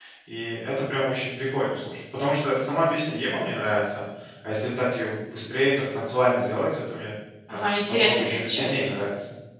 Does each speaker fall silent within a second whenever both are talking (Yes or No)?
No